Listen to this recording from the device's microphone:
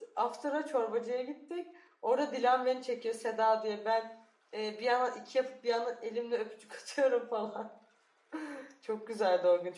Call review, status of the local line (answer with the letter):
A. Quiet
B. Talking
B